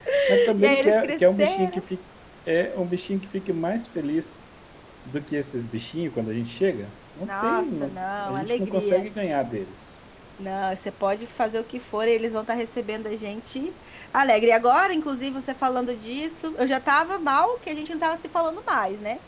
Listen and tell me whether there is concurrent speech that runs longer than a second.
Yes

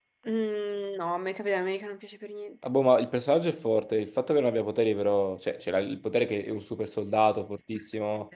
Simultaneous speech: No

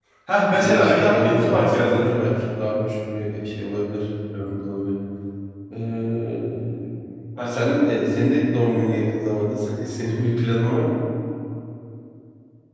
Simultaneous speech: Yes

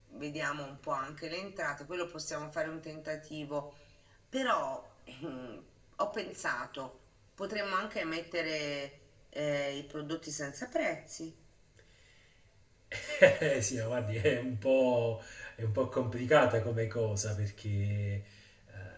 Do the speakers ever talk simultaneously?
No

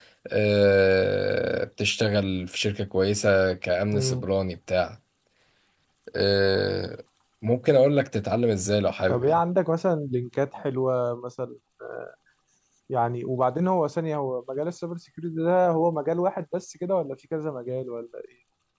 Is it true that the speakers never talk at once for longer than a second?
Yes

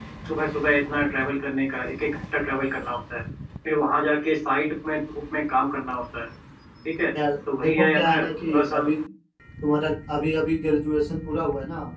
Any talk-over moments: Yes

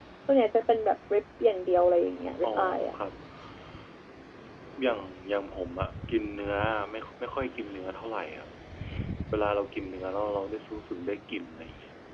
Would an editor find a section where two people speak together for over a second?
No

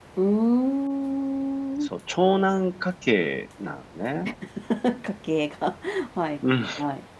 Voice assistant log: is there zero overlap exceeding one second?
Yes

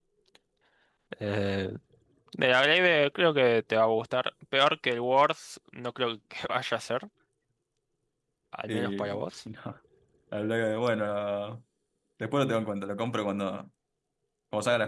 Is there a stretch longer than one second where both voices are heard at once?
No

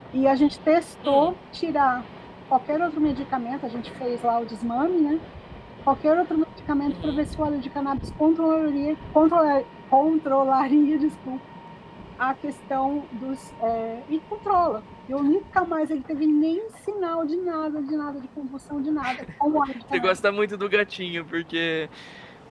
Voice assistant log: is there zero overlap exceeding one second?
Yes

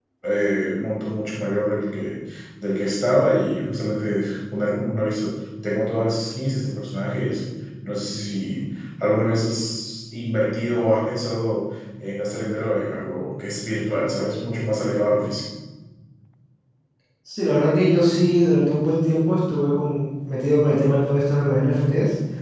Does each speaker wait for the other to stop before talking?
Yes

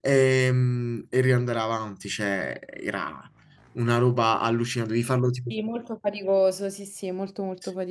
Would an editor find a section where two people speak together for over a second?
No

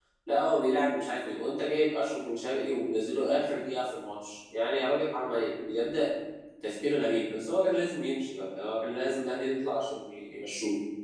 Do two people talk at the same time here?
No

